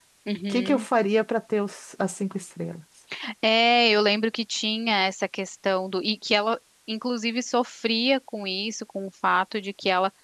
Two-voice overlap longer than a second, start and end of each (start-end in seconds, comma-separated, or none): none